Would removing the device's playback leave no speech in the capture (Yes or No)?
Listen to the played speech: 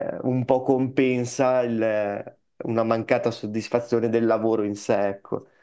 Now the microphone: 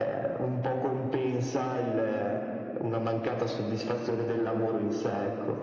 Yes